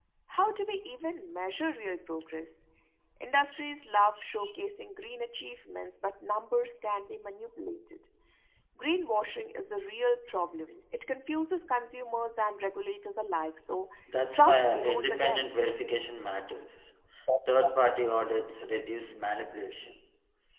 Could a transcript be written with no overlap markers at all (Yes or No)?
No